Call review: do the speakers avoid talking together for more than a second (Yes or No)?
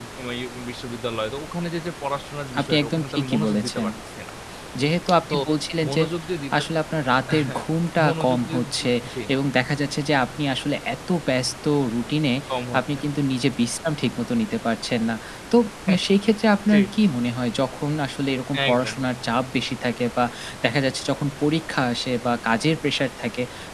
No